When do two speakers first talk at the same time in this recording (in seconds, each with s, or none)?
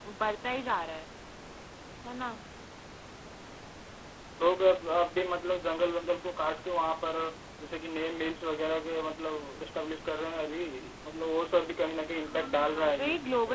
12.2 s